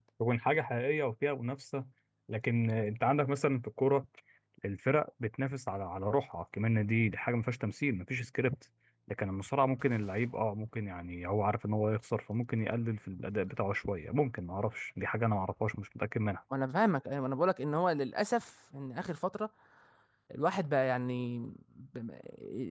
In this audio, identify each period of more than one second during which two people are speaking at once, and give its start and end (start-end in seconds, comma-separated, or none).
none